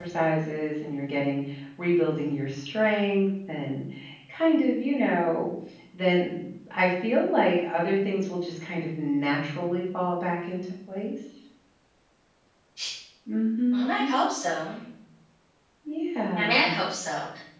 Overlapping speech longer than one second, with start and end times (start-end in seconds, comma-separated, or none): none